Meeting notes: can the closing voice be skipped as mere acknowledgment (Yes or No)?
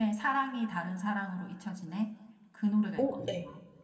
No